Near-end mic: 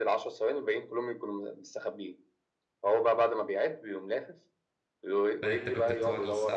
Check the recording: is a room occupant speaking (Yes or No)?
Yes